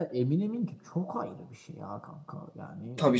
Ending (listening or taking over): taking over